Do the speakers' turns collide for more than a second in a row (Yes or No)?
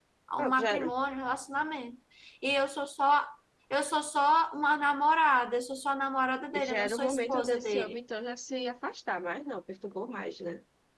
Yes